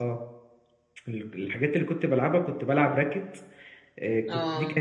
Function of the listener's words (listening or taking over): listening